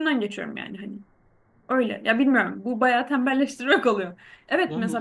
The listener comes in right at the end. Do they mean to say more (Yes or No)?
No